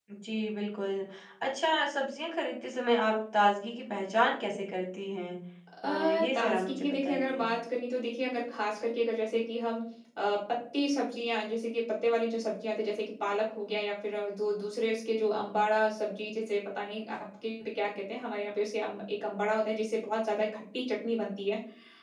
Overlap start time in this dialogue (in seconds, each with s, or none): 5.8 s